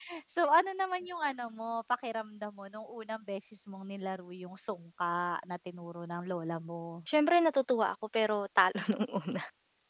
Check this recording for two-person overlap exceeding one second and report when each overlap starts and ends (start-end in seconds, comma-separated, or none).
none